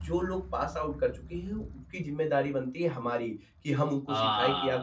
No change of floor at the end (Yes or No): Yes